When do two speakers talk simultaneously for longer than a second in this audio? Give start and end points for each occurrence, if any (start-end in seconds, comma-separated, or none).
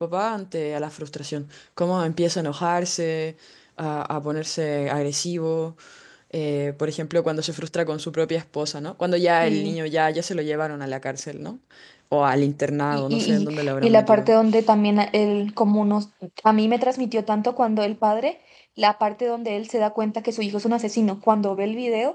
12.9-14.3